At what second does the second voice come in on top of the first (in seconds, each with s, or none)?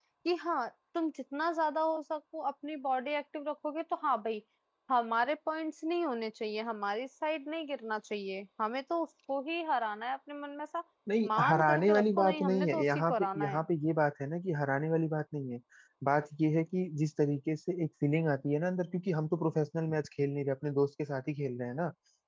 11.3 s